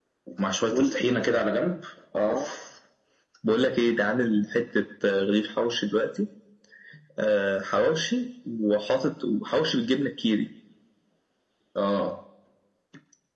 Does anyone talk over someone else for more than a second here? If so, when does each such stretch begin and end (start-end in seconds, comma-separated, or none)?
none